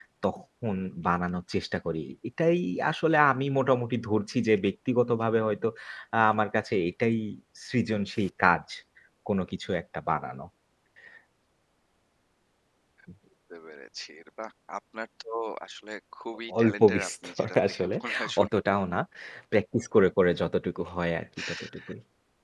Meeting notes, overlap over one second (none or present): present